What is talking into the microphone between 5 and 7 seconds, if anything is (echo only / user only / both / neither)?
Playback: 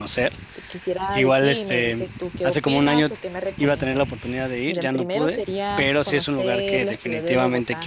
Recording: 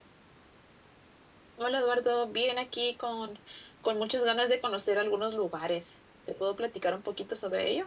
user only